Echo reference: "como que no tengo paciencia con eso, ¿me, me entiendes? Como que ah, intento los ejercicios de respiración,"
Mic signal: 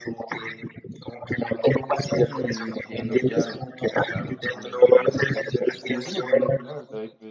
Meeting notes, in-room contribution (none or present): present